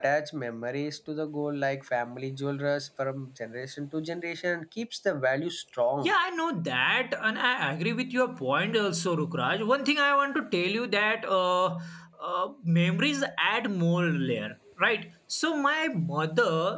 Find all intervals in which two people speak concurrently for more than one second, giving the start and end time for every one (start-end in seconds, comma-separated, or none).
none